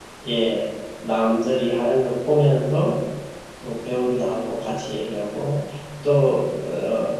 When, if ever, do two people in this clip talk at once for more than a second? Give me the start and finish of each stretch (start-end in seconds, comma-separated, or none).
none